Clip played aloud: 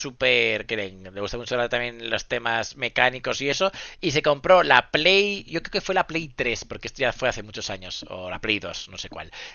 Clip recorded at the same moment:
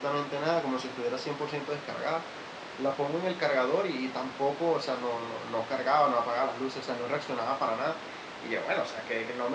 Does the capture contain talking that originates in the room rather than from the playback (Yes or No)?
Yes